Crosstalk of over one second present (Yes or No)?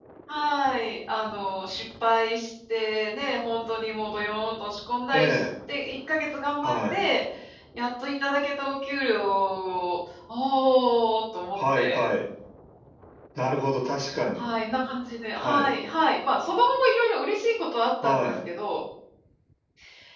No